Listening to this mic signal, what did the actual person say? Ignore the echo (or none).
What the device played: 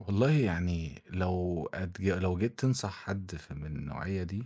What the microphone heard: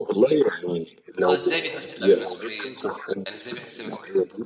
آه، إزاي بيحس بقى بالمسؤولية، يعني إزاي بيحس بالمسؤولية،